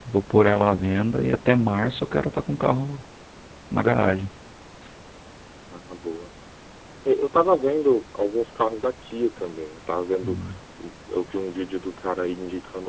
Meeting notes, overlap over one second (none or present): none